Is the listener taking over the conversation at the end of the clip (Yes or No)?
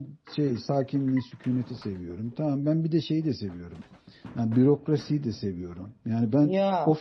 No